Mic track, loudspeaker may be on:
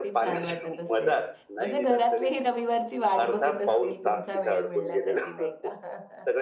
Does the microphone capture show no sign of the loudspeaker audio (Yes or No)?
No